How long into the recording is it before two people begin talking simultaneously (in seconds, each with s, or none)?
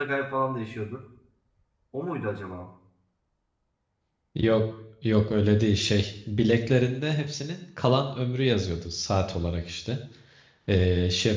none